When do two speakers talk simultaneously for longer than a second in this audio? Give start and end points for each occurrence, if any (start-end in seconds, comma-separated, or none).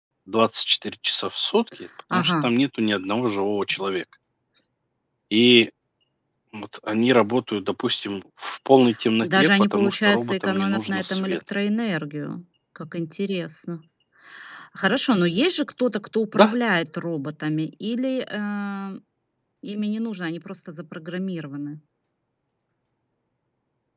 9.2-11.4